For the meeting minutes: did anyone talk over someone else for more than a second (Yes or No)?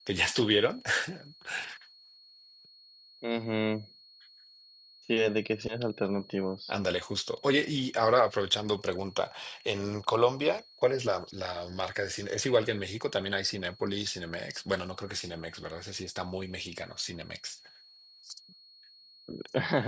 No